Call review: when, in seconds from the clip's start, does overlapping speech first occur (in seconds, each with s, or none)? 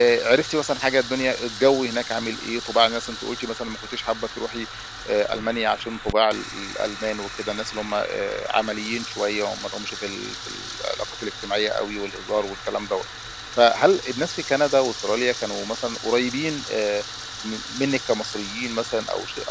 none